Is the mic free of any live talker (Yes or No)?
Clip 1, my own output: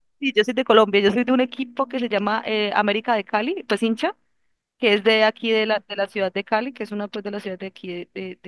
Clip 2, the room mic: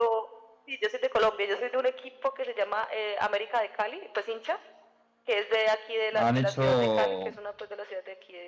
No